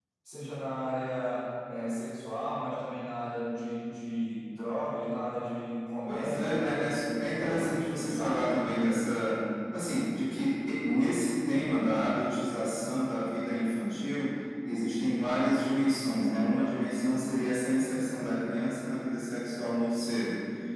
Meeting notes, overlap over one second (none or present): present